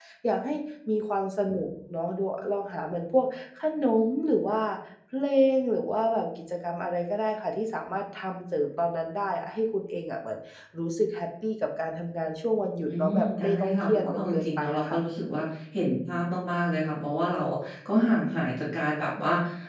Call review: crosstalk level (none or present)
present